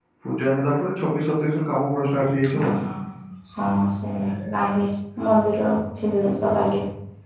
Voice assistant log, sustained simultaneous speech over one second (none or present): none